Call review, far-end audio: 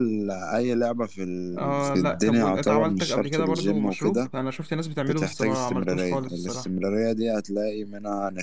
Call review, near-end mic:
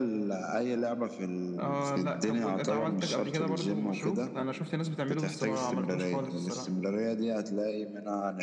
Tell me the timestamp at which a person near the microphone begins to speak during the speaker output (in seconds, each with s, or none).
none